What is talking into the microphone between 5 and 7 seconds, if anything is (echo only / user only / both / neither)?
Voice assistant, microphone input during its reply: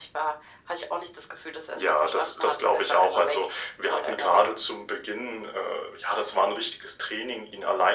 echo only